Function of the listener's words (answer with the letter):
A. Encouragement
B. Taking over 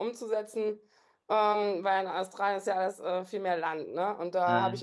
A